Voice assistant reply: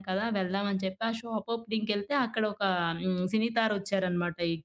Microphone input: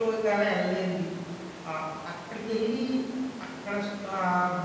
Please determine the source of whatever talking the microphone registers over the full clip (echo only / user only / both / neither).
user only